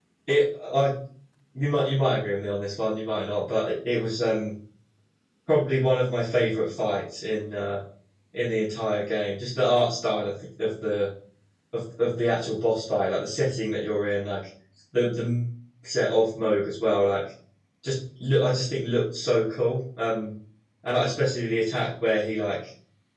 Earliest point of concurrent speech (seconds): none

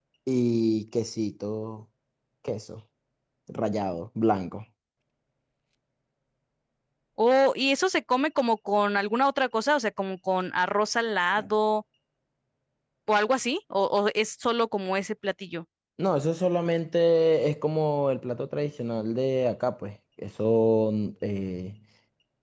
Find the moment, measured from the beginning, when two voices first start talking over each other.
none

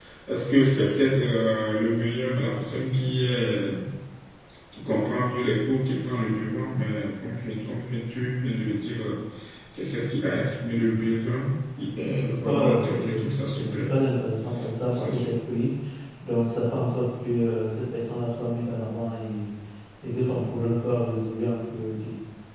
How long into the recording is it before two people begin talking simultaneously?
12.4 s

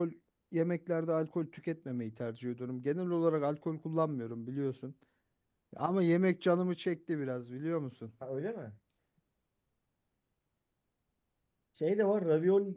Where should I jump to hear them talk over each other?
none

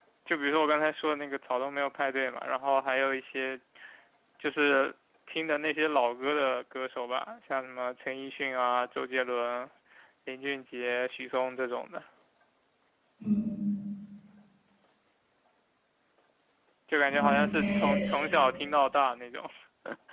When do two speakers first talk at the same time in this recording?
17.1 s

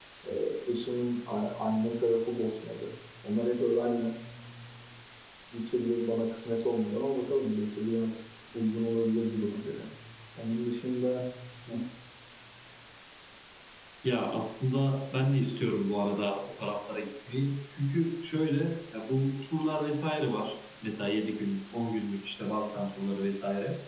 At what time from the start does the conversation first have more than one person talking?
none

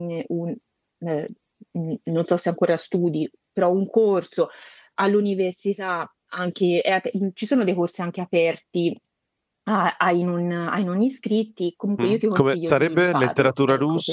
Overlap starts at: 12.0 s

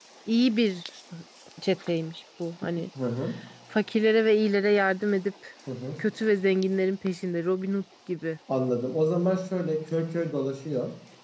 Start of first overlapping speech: none

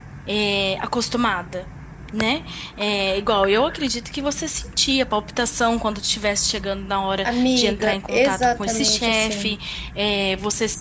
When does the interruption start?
7.2 s

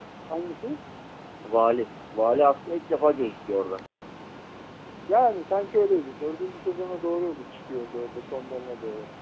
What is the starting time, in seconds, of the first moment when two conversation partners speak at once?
none

